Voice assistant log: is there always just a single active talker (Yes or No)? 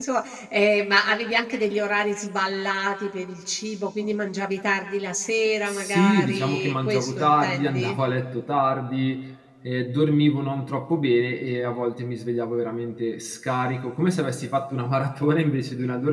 No